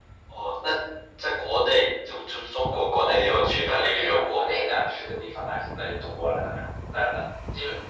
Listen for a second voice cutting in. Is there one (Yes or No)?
Yes